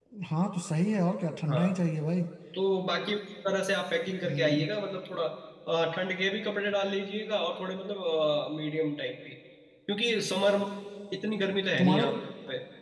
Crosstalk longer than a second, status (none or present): none